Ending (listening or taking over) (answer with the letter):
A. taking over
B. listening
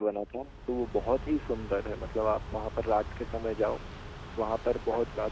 B